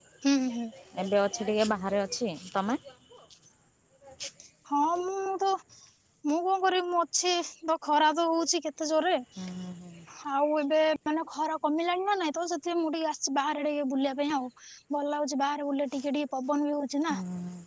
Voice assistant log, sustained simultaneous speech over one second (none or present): none